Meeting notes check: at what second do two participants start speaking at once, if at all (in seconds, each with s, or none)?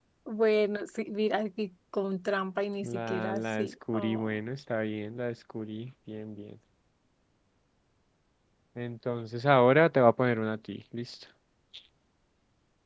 2.8 s